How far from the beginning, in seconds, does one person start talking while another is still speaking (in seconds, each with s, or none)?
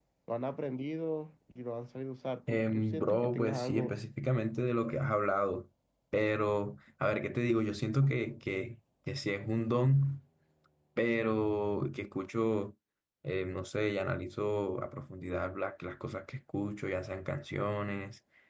2.5 s